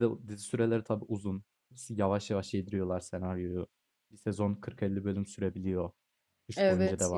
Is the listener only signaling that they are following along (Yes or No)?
No